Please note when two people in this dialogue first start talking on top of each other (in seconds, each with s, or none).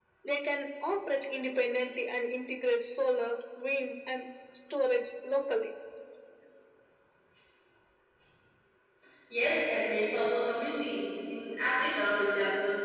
none